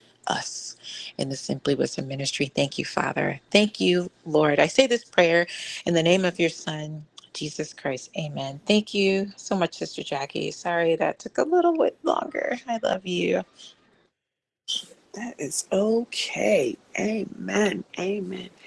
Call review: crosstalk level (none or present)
none